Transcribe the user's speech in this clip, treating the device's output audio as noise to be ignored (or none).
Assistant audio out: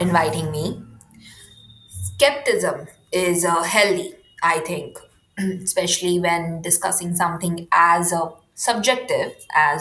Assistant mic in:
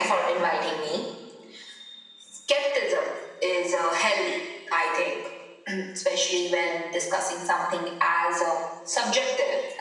none